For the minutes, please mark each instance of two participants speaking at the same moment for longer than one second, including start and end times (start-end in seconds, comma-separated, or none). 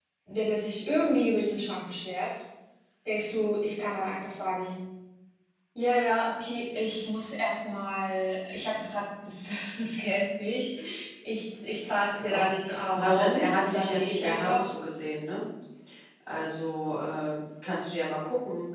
12.9-14.7